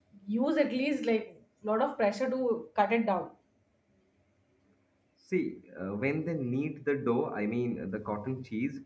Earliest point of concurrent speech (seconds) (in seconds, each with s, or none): none